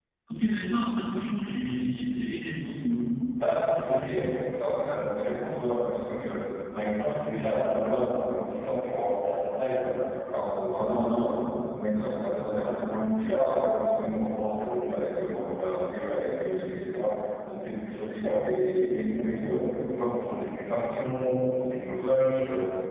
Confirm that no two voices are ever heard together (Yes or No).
Yes